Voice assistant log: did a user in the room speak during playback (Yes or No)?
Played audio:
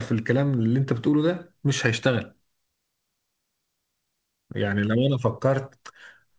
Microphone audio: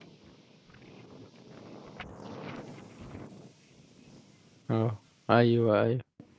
Yes